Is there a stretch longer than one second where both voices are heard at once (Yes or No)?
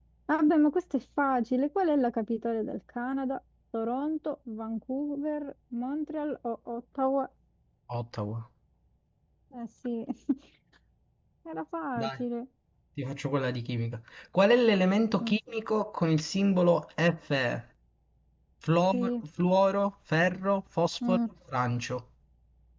No